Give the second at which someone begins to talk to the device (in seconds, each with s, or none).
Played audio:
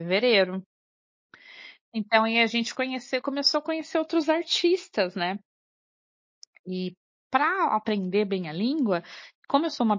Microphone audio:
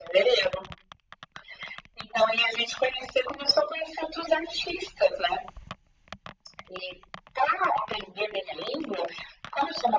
none